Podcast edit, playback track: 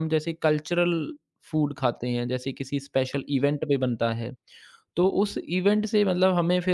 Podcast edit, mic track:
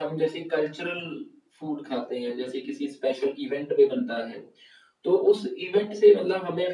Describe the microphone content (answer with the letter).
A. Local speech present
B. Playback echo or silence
B